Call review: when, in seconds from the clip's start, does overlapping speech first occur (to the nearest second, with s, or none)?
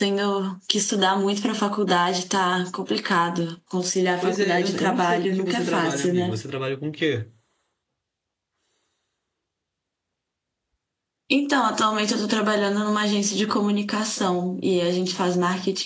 4 s